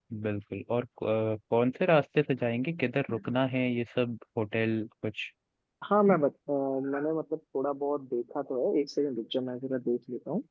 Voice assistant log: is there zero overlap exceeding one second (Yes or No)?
Yes